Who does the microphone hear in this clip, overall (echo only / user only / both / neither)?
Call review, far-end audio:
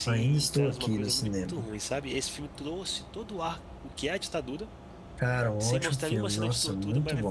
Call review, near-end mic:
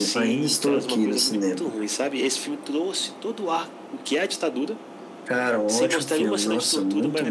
echo only